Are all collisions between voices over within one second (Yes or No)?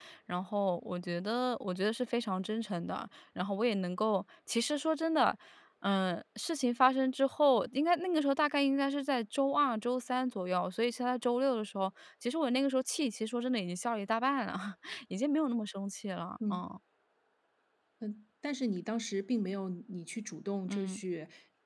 Yes